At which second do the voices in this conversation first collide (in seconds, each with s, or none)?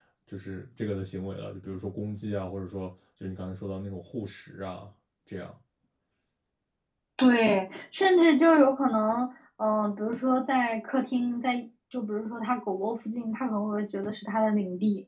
none